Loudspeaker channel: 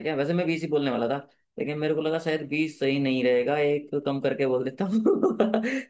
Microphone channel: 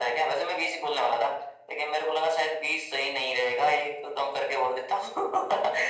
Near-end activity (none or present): none